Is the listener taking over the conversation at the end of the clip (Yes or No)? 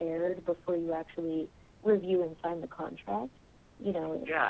Yes